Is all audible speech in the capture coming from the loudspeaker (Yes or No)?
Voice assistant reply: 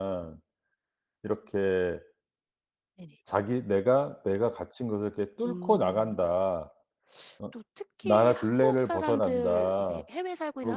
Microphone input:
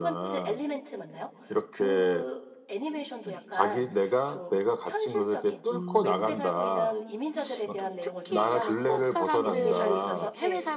No